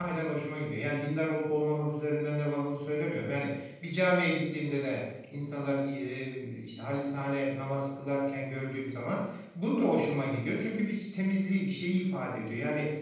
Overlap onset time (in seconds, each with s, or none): none